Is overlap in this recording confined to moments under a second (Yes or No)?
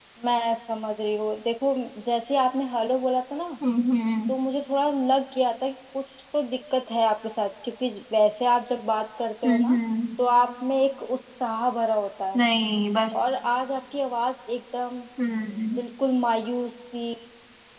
Yes